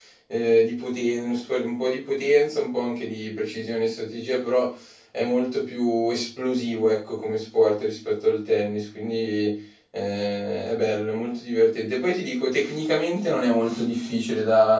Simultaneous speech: No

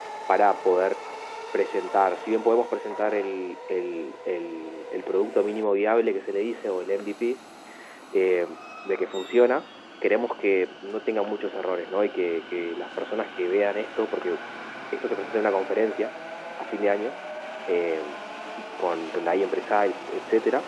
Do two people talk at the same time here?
No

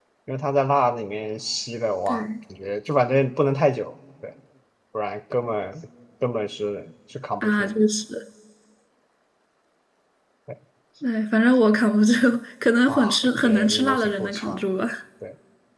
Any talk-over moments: Yes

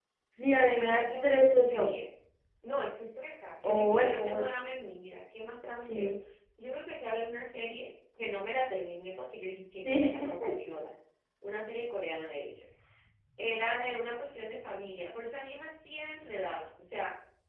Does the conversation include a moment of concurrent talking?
Yes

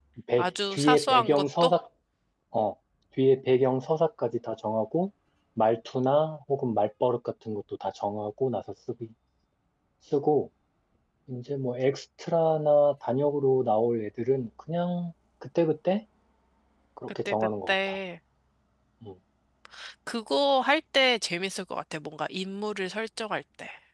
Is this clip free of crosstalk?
No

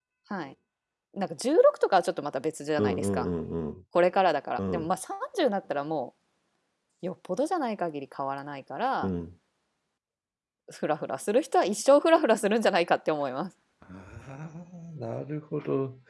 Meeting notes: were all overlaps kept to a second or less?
Yes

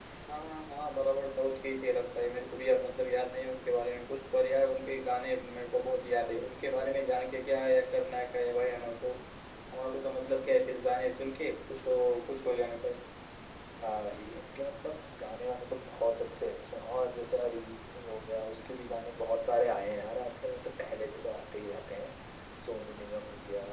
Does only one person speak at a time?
Yes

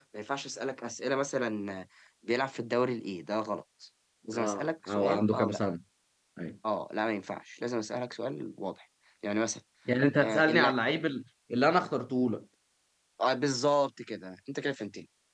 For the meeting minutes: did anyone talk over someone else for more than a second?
Yes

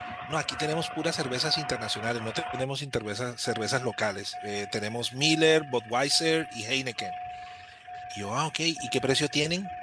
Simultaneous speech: No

